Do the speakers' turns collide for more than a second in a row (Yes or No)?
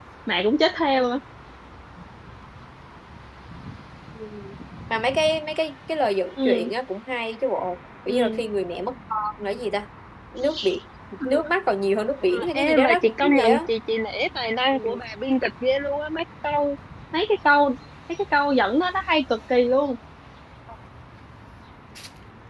Yes